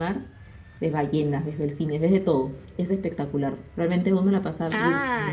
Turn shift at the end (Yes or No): Yes